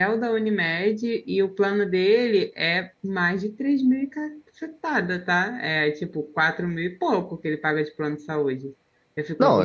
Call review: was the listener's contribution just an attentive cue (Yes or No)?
No